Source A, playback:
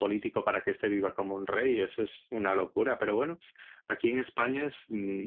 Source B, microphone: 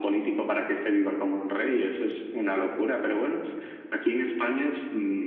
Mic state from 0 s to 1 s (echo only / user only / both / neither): echo only